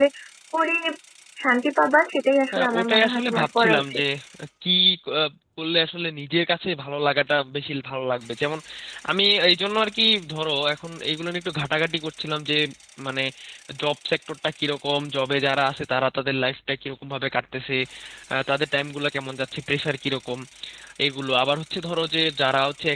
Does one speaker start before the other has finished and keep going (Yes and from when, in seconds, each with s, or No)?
Yes, from 2.5 s